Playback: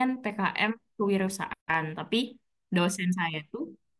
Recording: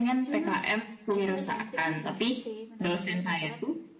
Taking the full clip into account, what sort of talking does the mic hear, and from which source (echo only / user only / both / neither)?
both